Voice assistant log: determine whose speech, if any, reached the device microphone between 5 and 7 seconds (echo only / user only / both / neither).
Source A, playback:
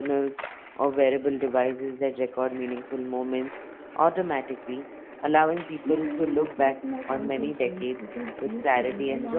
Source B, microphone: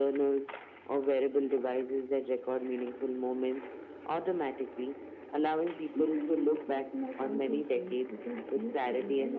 echo only